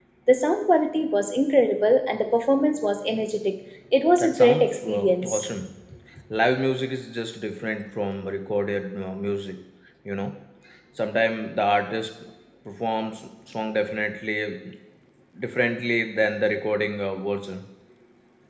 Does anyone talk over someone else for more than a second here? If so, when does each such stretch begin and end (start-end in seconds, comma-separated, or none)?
4.2-5.4